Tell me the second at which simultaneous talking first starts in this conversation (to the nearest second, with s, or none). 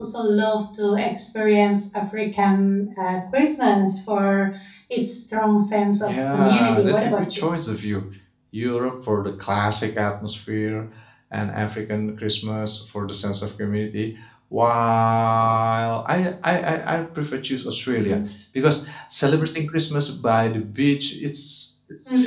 6 s